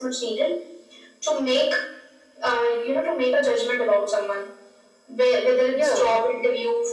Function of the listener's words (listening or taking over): listening